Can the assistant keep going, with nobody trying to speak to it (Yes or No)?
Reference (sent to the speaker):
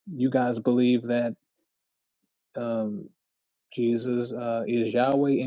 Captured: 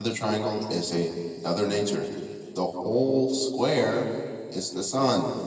No